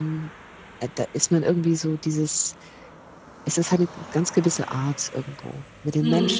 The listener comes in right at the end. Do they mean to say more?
No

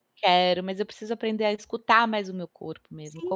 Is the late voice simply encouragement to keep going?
No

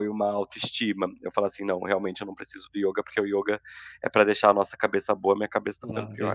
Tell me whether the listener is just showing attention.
No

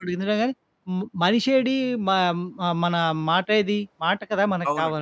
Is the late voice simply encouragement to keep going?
No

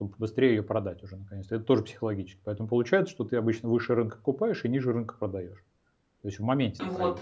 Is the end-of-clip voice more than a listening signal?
Yes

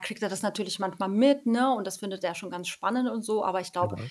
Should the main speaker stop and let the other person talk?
No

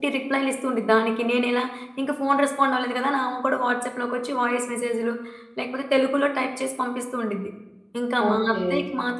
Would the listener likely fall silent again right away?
Yes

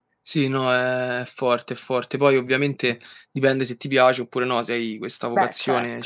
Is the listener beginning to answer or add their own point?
No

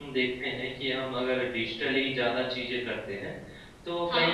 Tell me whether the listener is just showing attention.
Yes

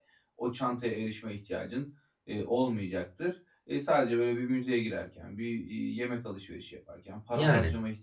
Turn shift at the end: No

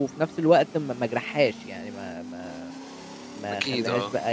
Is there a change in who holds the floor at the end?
No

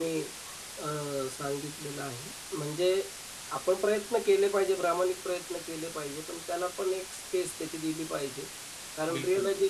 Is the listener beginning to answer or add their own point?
No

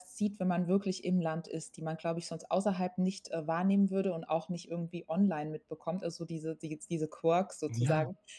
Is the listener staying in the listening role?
Yes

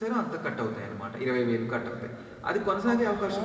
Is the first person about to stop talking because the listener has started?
No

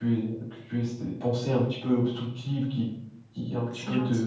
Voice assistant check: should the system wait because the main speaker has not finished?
Yes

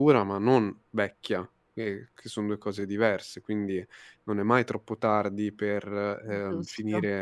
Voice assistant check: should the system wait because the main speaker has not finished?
Yes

